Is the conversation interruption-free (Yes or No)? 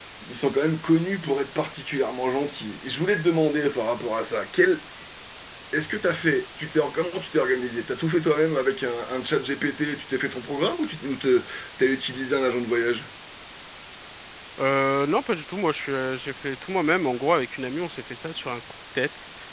Yes